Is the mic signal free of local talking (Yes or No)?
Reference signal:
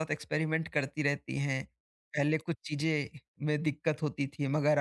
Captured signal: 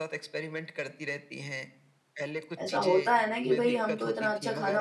No